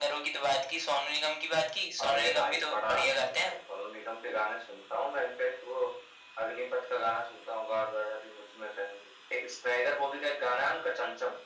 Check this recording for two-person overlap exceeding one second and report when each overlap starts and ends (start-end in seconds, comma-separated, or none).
2.0-3.6